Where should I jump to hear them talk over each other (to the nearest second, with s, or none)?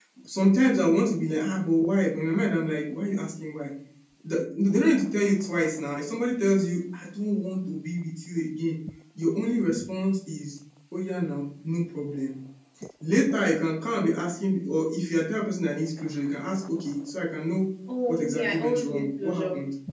18 s